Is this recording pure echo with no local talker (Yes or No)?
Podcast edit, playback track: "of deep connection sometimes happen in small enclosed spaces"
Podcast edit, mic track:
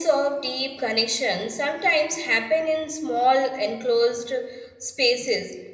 Yes